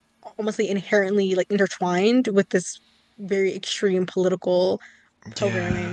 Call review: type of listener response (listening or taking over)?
taking over